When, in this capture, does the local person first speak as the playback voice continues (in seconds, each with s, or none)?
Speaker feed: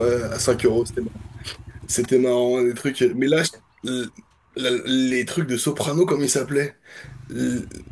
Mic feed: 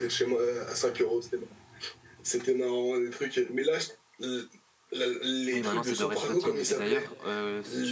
5.5 s